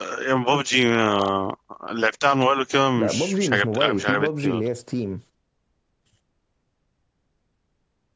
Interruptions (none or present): present